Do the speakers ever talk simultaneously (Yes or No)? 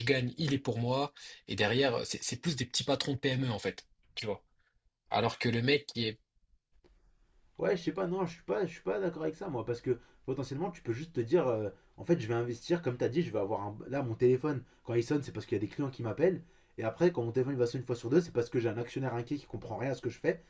No